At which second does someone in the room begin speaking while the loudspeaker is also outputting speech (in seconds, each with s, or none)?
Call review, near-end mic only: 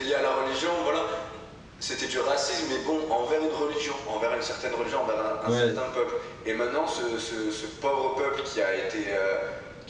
5.4 s